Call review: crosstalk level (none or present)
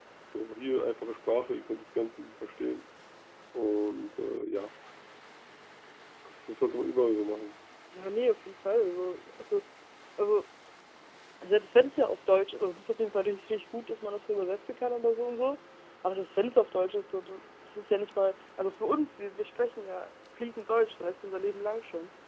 none